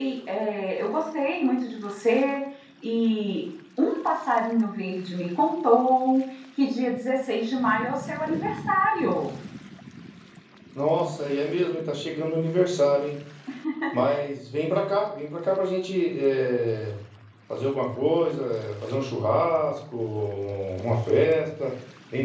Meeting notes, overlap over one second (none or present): none